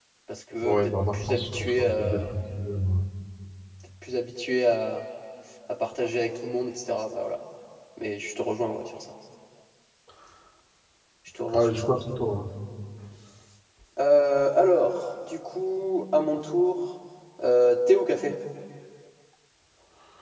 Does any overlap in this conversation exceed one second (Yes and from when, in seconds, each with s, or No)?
Yes, from 0.6 s